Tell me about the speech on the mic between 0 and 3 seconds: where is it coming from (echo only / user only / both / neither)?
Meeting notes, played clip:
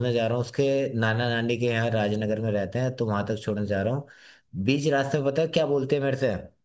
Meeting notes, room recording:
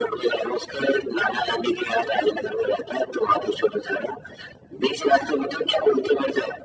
echo only